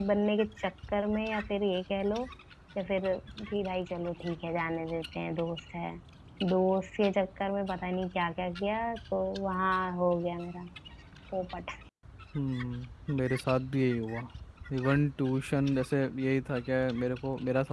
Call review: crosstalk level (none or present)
none